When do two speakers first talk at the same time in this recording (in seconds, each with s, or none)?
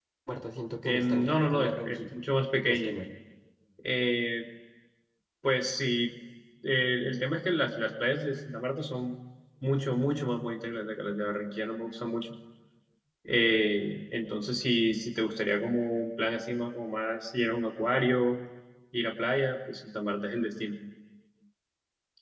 0.8 s